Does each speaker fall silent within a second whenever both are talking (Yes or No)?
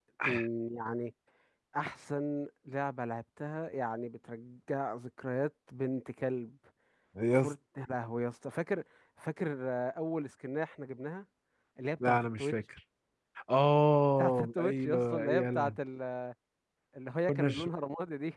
No